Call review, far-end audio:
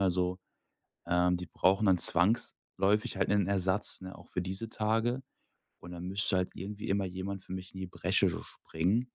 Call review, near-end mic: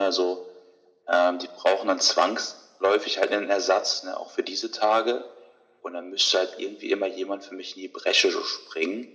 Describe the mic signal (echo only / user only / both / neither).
echo only